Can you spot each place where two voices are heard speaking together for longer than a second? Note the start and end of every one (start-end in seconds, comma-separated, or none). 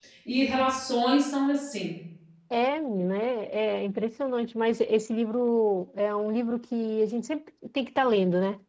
none